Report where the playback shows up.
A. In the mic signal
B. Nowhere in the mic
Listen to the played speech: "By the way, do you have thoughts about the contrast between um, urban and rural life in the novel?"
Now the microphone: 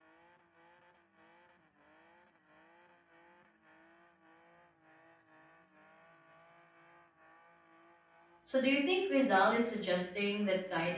B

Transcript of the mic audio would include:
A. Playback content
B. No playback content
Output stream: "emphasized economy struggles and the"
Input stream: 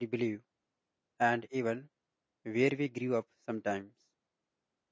B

